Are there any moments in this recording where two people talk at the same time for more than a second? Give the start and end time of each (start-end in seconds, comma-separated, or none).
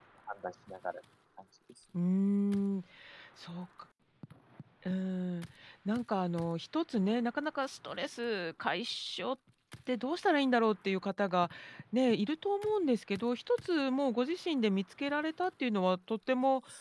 none